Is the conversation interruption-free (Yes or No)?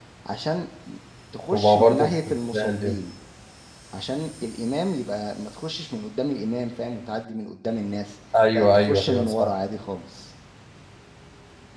No